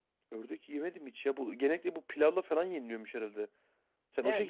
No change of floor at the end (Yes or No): No